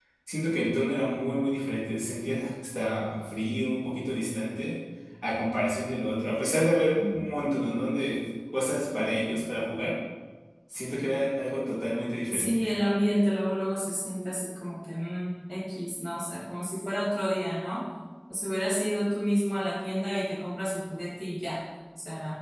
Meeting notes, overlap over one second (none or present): none